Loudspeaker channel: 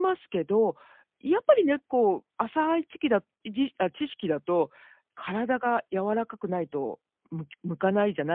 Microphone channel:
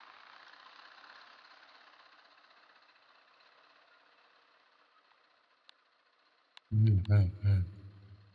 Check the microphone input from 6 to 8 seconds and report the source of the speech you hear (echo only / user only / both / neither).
user only